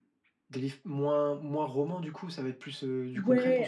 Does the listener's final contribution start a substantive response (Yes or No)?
Yes